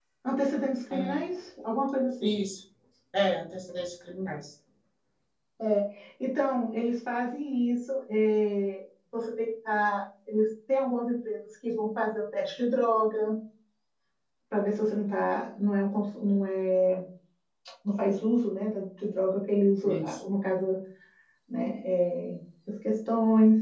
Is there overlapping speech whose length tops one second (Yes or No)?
No